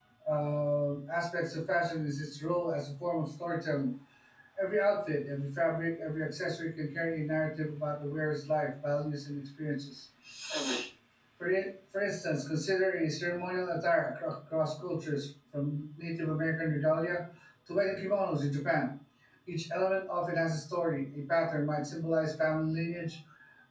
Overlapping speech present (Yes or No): No